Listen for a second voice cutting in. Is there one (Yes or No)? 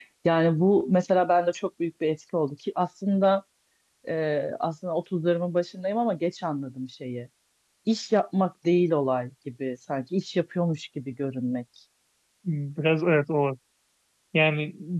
No